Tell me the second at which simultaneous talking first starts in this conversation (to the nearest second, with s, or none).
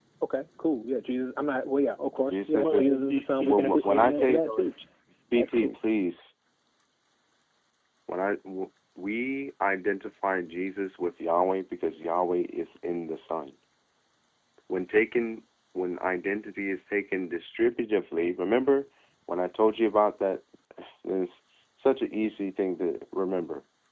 2 s